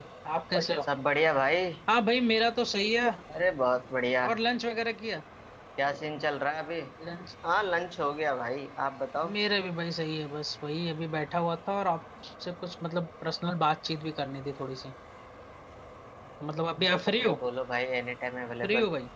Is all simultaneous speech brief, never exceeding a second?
Yes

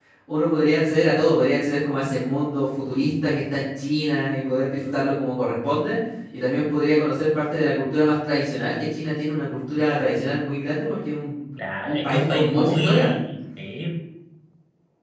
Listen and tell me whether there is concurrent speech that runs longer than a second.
Yes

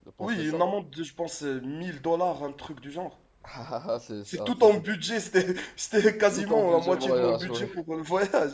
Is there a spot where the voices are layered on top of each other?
Yes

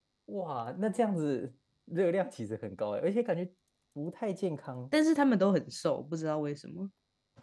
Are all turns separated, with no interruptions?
Yes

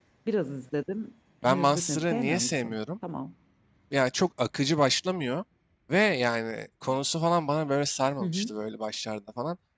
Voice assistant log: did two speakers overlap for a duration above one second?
Yes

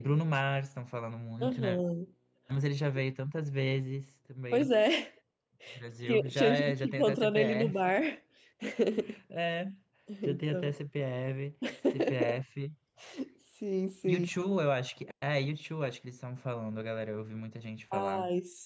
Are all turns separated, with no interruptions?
No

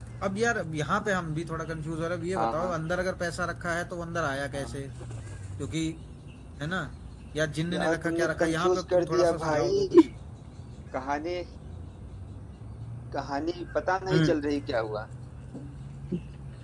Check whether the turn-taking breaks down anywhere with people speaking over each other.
Yes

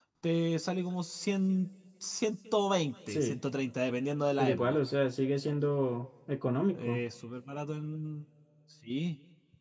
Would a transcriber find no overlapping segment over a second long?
Yes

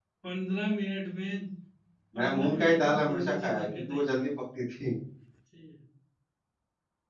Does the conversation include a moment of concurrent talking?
Yes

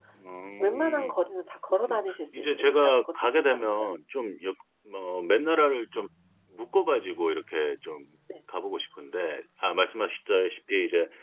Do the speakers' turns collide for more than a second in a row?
Yes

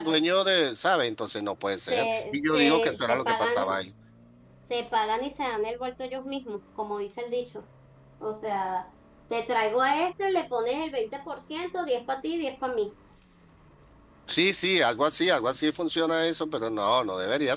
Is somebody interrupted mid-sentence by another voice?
Yes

